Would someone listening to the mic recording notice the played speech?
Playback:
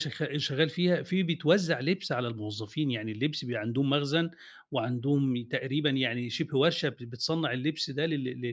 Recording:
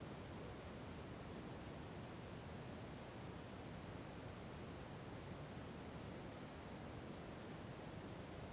No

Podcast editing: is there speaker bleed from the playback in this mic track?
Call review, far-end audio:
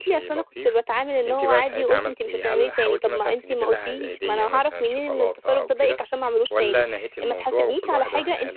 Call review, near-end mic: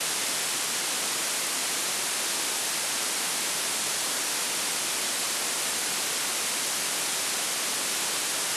No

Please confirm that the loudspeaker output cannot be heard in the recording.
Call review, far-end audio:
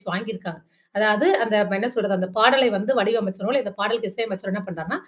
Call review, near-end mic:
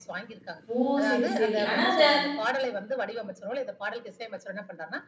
No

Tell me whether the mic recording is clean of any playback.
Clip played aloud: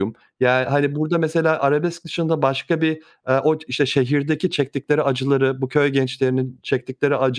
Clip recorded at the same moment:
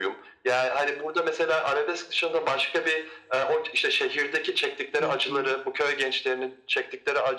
No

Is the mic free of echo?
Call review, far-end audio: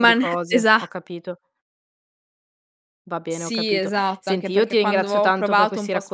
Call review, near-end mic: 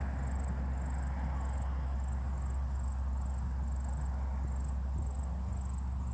Yes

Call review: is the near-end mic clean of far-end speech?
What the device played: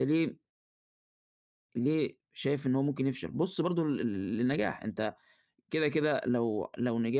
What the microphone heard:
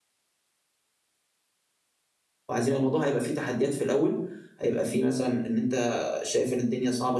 Yes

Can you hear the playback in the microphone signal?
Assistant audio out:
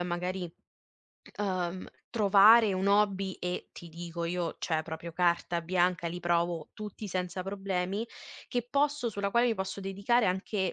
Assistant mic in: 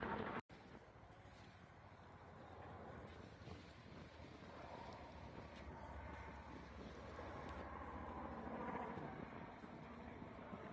No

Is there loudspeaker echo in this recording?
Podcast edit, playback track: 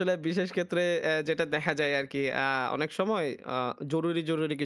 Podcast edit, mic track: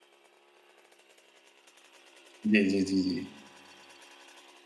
No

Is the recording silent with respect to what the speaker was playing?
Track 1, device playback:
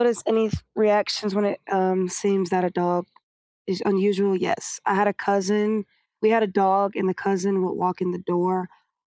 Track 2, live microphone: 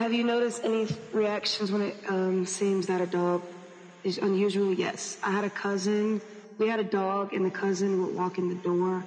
No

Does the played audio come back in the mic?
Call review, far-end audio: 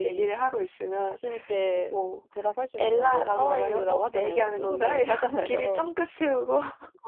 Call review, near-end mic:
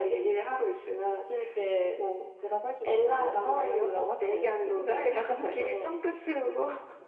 Yes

